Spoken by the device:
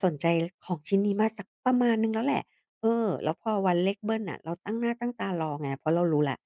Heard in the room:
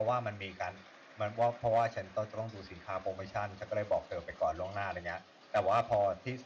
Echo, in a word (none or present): none